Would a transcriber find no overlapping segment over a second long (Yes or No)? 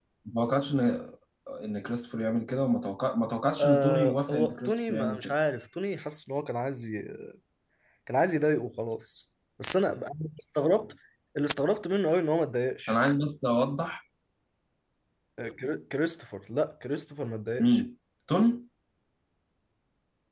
No